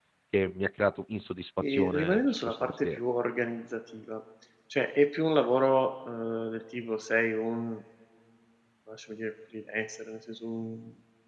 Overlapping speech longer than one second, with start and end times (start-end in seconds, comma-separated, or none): 1.6-3.0